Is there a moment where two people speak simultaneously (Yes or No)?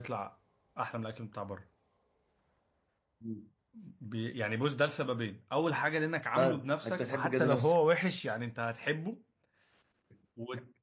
Yes